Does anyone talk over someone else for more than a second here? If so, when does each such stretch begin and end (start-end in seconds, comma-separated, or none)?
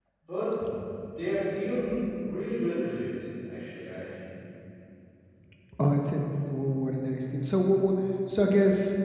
none